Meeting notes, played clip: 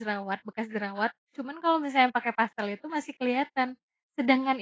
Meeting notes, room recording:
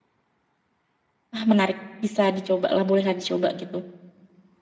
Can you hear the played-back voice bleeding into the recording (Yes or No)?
No